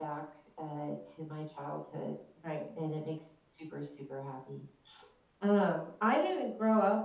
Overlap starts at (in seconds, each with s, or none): none